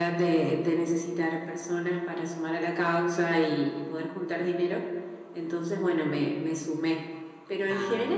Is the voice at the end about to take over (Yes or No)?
No